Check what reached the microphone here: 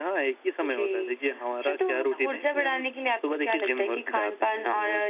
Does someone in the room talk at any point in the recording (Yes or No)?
No